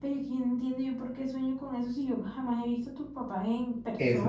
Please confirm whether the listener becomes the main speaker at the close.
Yes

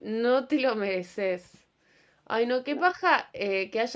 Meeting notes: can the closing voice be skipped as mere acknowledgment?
Yes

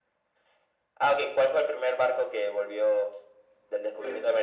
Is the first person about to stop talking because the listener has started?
No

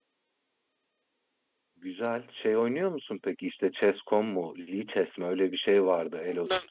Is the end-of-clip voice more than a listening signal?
Yes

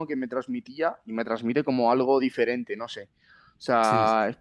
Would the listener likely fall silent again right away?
Yes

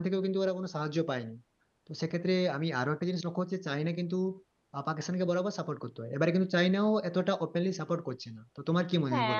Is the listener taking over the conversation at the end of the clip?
Yes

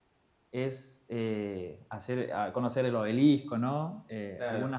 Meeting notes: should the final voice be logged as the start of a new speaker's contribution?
No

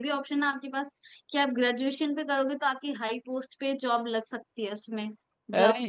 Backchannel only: No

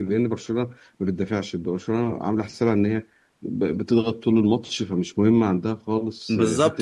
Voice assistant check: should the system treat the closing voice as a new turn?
Yes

